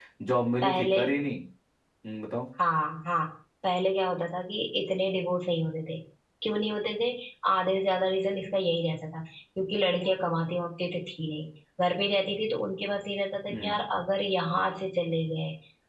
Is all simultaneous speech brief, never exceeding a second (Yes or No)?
Yes